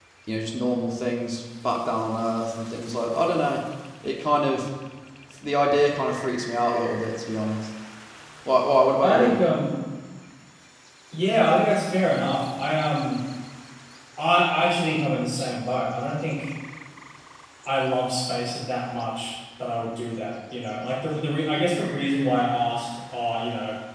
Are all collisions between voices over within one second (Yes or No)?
Yes